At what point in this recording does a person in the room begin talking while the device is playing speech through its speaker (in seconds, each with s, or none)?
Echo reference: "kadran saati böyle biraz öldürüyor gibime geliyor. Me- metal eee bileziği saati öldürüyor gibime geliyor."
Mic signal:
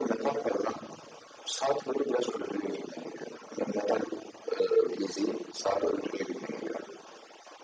none